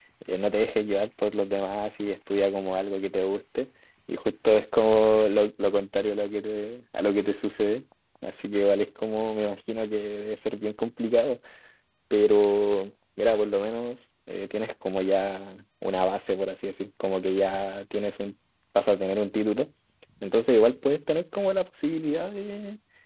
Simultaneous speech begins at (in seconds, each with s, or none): none